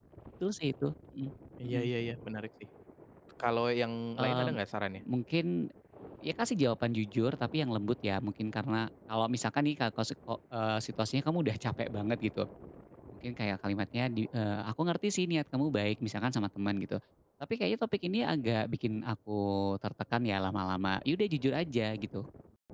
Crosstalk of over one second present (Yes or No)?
No